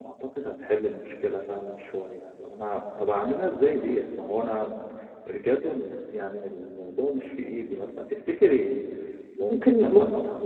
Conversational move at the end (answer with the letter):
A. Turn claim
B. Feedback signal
A